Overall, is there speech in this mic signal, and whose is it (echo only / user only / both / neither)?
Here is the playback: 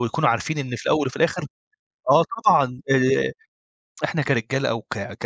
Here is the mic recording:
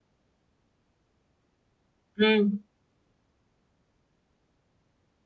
user only